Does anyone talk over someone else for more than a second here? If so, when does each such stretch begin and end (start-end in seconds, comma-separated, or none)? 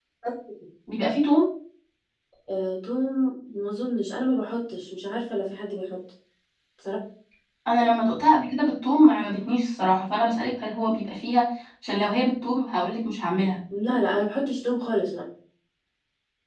none